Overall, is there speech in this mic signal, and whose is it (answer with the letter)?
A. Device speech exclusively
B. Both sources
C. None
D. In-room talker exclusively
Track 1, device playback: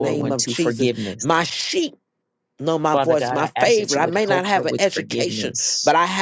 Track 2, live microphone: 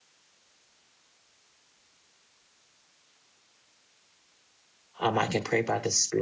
D